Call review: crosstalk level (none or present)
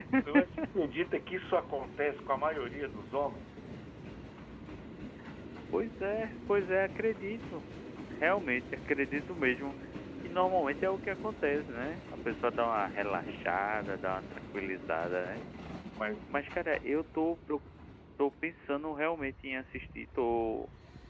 none